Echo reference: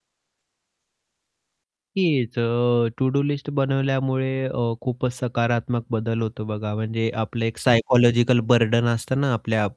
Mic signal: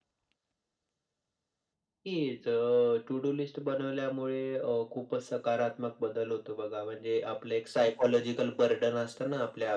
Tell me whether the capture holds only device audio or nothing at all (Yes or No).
Yes